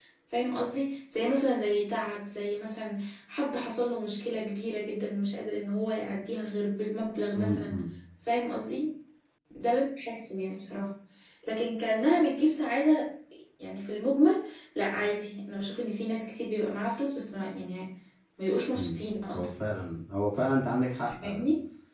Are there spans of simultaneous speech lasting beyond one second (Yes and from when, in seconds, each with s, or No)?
No